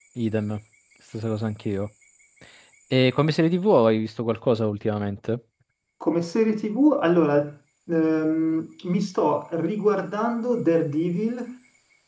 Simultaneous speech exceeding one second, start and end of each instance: none

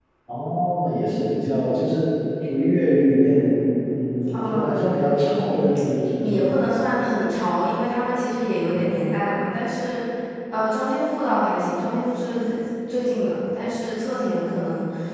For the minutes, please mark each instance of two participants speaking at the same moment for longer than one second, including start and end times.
4.3-5.7

